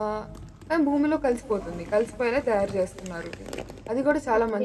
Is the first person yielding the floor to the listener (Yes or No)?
Yes